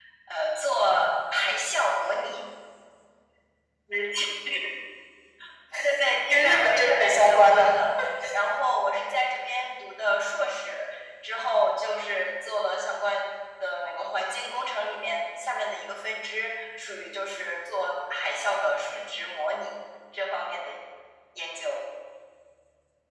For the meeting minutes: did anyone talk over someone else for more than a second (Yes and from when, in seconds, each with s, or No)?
Yes, from 6.3 s